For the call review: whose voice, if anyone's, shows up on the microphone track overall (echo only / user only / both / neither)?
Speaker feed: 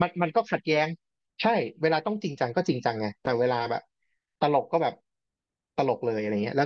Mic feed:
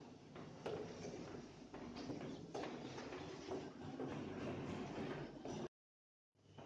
neither